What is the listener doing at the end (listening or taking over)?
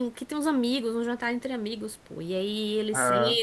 listening